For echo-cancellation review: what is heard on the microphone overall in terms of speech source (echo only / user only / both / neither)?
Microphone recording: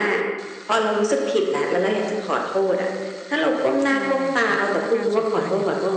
both